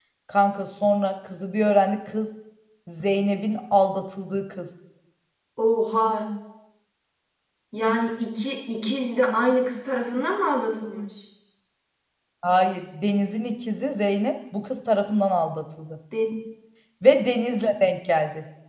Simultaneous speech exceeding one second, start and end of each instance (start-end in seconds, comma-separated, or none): none